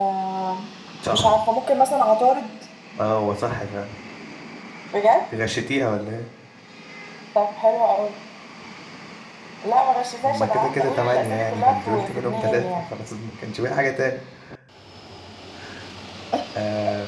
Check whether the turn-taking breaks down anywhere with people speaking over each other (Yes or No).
Yes